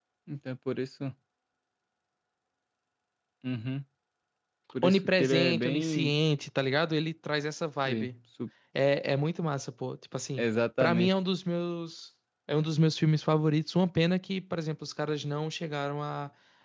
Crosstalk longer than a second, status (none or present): present